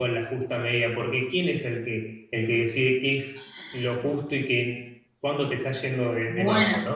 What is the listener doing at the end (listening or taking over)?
taking over